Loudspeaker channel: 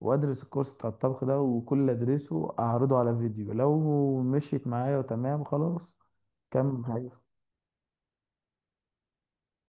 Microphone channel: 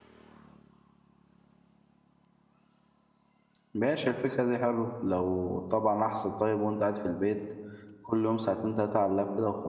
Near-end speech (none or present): present